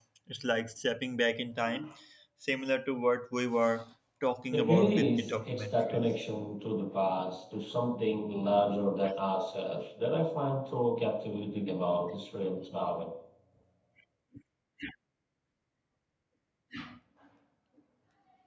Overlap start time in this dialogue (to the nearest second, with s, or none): 4 s